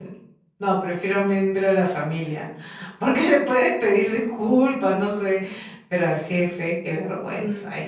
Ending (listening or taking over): taking over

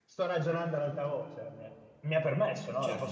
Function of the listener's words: taking over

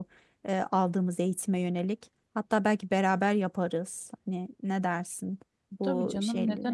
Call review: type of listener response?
taking over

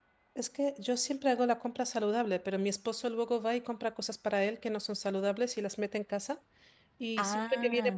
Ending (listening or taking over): listening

